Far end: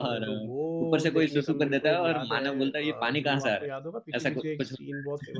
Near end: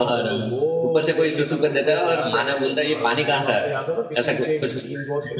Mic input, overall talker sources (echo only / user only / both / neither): echo only